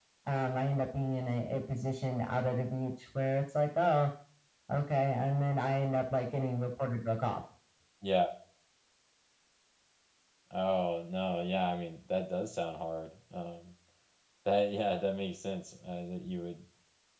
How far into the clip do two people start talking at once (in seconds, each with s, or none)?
none